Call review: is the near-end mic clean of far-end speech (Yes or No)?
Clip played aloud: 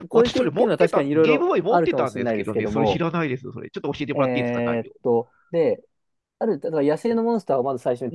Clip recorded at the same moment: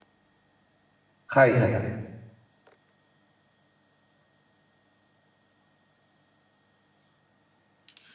Yes